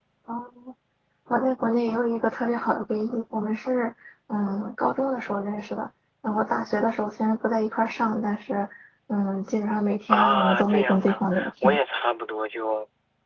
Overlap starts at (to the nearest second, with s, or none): 10 s